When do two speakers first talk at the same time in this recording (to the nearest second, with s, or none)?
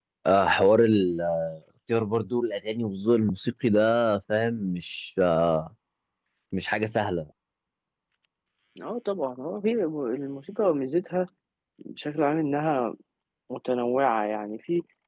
none